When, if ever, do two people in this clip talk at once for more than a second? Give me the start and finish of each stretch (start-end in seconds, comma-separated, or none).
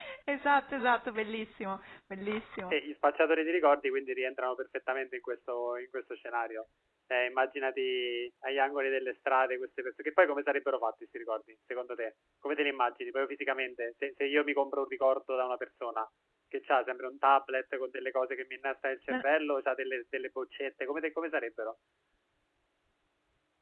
none